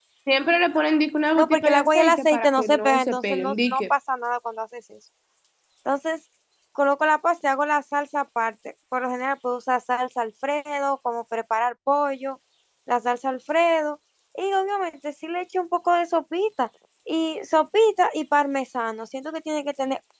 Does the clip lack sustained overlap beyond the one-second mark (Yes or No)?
No